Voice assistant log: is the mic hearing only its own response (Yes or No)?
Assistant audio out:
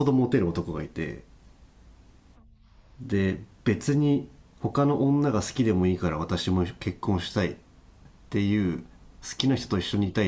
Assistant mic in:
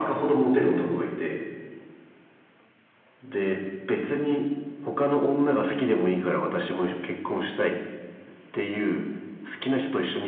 Yes